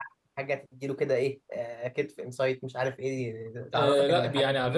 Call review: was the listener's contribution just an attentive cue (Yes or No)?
No